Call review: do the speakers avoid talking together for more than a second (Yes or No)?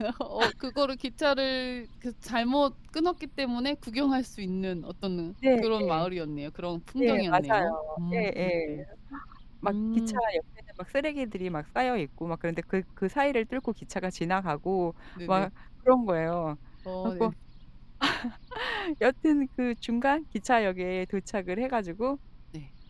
No